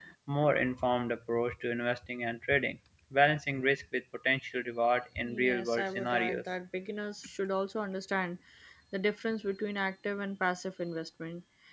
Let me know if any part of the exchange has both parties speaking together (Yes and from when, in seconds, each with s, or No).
Yes, from 5.2 s